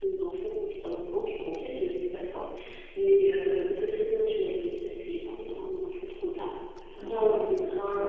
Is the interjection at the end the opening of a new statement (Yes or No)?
Yes